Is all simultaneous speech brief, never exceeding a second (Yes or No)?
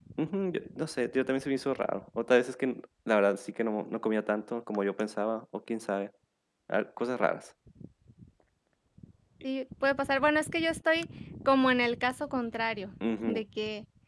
Yes